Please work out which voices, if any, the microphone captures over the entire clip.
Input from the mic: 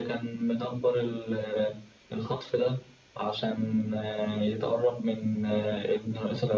echo only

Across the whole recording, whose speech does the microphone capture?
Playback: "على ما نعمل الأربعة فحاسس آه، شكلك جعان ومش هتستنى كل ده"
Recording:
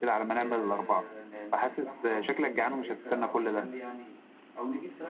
both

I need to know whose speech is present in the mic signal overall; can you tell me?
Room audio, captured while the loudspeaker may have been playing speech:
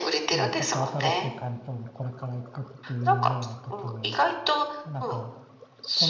both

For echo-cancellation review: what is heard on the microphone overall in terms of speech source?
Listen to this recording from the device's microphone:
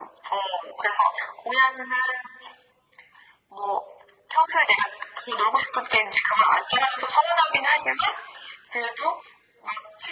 echo only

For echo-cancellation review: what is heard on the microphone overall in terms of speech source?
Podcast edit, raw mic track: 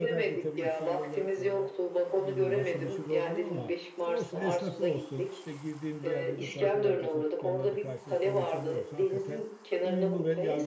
both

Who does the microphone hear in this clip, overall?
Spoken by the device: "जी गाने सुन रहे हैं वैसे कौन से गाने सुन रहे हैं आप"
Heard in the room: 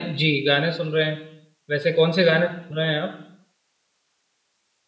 echo only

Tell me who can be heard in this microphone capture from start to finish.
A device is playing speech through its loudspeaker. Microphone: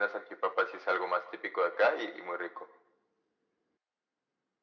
echo only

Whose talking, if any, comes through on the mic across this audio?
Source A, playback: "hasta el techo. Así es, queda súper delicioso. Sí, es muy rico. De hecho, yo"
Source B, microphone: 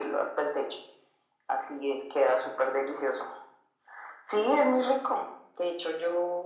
echo only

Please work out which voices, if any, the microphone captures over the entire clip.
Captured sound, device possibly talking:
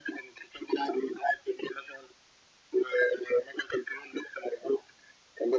echo only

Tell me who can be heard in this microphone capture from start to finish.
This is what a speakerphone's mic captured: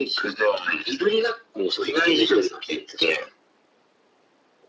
echo only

